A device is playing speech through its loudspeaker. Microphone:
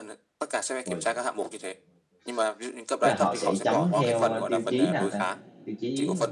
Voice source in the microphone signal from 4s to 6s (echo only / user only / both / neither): both